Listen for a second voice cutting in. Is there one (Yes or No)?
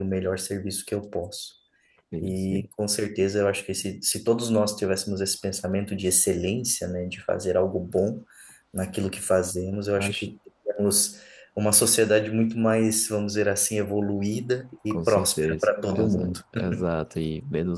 Yes